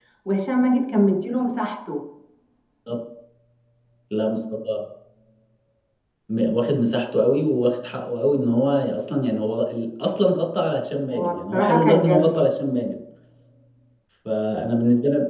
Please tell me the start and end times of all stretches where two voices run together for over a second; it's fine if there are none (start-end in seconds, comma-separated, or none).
11.1-12.4